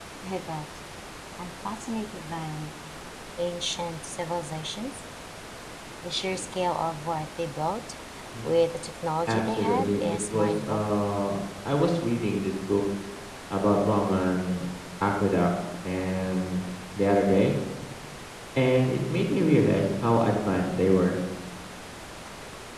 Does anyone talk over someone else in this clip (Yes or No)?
Yes